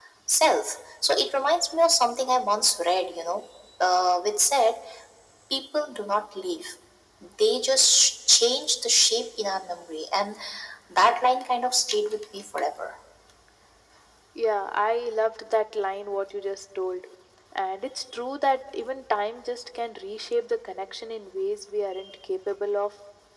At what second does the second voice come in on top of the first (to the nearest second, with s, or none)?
none